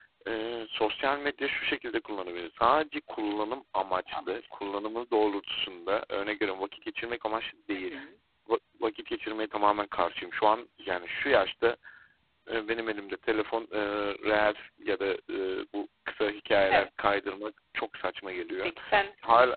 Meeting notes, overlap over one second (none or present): none